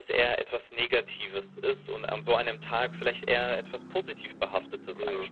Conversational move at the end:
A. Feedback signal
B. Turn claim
B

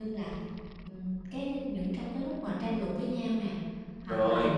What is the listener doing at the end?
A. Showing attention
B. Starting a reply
A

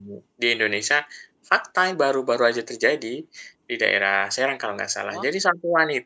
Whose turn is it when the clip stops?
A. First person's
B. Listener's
A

